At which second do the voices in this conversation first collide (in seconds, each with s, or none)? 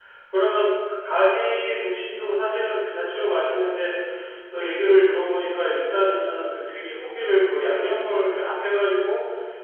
none